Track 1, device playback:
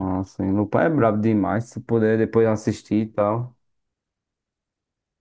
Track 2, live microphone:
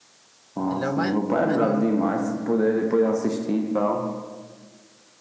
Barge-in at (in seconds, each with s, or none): 0.7 s